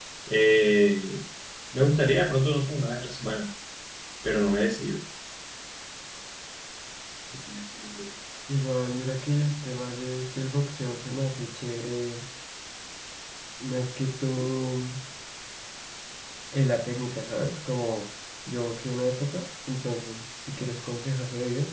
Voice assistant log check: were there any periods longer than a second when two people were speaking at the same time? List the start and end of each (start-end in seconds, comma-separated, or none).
none